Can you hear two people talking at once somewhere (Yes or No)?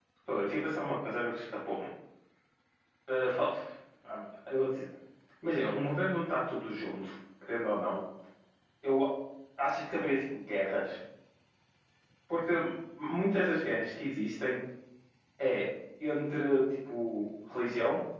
No